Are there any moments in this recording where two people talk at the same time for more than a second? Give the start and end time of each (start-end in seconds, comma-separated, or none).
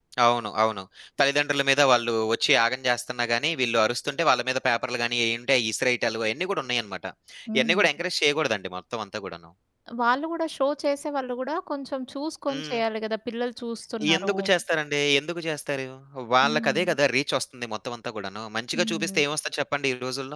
none